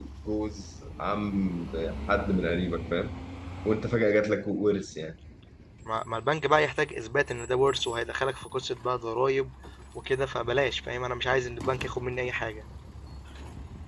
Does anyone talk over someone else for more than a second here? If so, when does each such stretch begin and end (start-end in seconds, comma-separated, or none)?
none